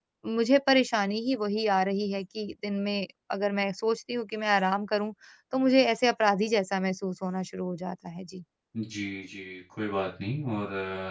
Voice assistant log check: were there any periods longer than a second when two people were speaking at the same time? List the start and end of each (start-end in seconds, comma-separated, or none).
none